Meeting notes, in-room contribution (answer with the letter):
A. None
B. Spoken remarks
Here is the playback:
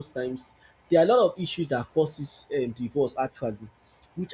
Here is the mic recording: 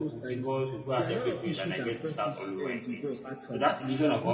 B